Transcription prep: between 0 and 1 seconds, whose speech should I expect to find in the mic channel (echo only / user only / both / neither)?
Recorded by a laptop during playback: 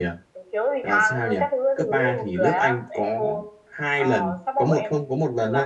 both